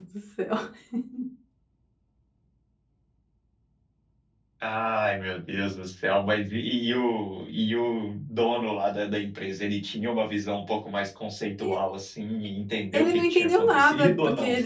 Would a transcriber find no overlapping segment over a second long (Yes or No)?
No